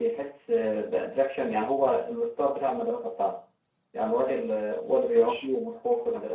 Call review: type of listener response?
listening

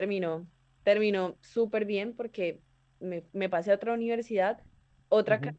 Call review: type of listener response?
listening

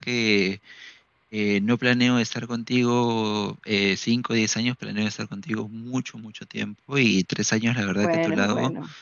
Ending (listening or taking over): listening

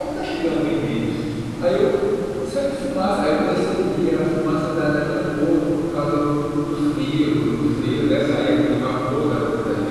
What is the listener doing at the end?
listening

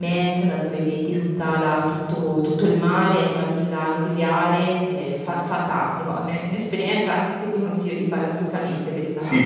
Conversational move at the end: taking over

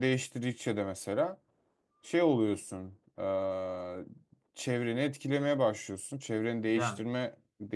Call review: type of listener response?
listening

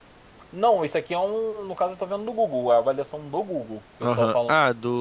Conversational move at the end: taking over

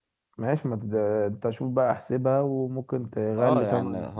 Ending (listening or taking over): taking over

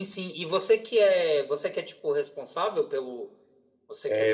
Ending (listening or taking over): taking over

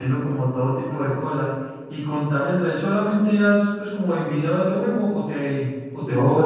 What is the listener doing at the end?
taking over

